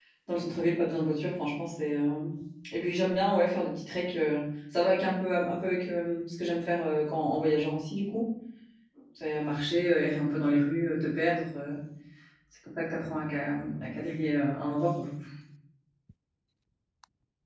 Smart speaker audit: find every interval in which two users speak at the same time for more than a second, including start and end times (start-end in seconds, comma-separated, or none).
none